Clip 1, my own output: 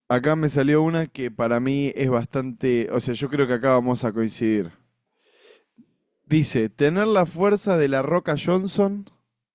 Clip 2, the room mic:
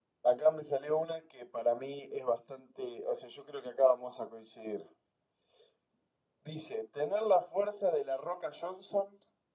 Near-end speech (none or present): none